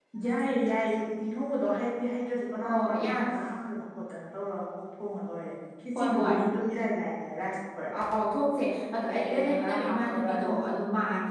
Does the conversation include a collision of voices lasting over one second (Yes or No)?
Yes